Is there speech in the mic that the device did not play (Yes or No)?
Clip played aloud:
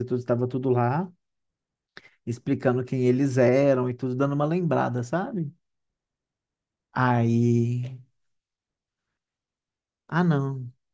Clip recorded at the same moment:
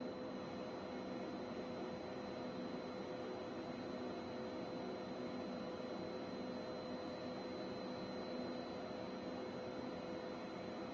No